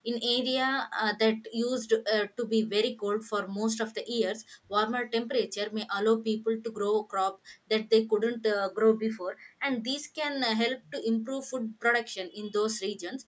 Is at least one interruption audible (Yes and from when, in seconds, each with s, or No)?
No